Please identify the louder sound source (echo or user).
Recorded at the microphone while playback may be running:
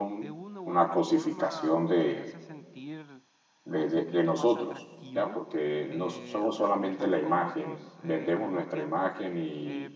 user